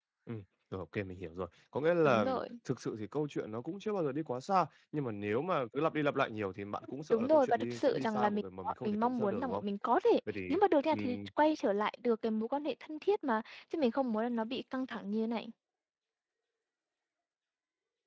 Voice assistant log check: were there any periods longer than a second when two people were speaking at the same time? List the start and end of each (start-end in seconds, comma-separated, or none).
6.8-9.6